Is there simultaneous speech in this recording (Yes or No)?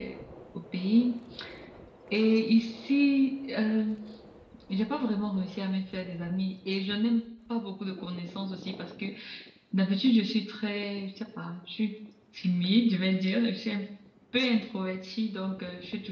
No